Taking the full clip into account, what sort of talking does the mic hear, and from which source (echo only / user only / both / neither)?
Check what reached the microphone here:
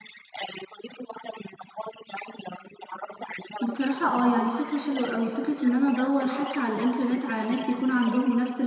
both